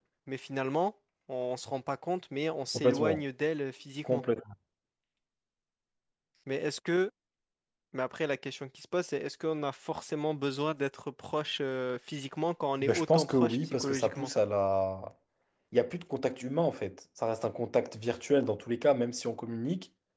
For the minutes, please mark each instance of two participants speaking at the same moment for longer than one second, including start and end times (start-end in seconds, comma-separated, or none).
12.8-14.3